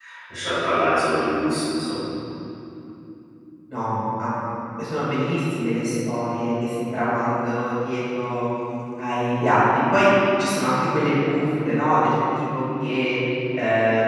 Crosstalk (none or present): none